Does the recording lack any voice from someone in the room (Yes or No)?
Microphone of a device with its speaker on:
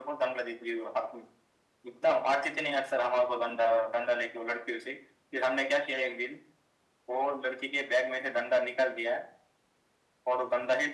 Yes